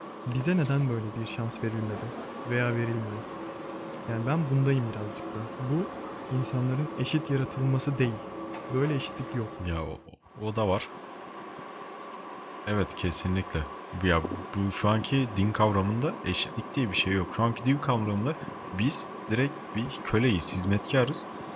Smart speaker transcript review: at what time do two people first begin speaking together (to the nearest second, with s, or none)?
none